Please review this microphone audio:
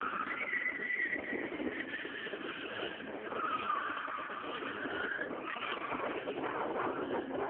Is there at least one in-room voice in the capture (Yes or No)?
No